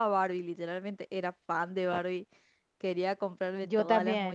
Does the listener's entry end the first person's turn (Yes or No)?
No